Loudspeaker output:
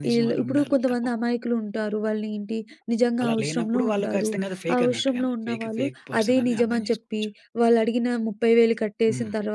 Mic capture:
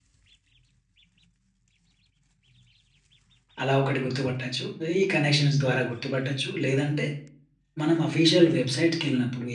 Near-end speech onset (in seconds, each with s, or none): 3.6 s